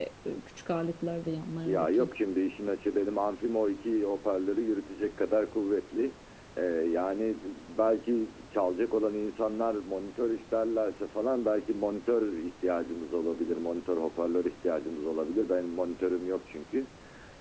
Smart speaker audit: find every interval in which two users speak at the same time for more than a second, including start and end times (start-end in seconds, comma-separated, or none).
none